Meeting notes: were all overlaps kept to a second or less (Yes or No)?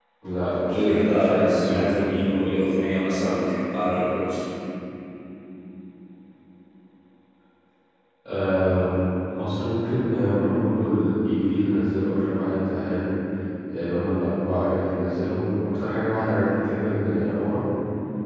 No